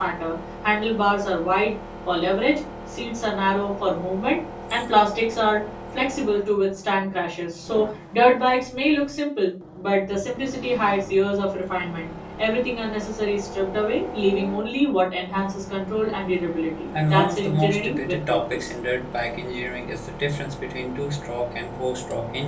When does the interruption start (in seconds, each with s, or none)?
16.9 s